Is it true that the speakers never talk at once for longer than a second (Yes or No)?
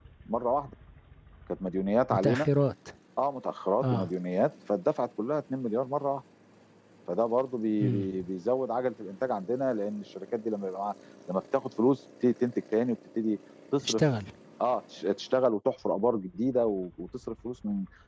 Yes